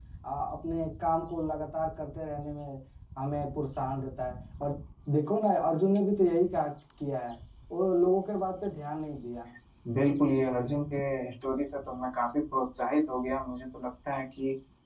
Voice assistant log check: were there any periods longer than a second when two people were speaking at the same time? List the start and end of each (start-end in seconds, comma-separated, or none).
none